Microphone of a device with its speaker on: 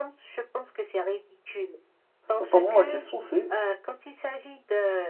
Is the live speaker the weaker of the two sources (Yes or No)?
No